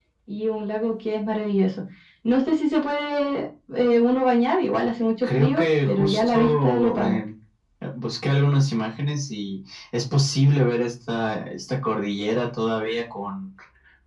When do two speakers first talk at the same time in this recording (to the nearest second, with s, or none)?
5 s